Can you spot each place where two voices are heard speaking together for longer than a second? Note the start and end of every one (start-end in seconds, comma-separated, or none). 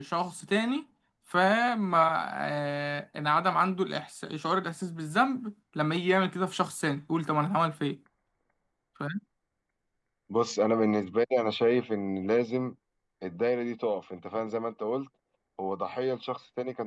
none